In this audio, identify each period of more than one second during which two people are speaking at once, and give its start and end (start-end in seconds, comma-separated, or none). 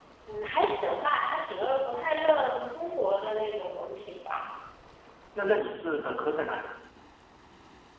none